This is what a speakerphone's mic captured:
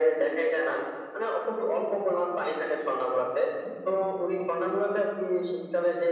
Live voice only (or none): none